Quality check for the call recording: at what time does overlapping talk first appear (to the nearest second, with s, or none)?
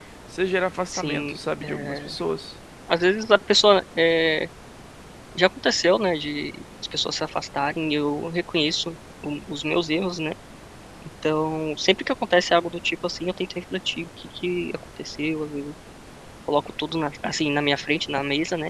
1 s